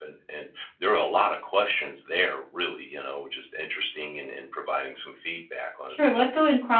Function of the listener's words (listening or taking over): taking over